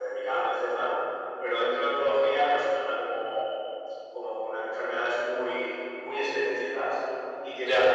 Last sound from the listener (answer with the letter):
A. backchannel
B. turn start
A